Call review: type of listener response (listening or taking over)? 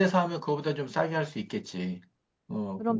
taking over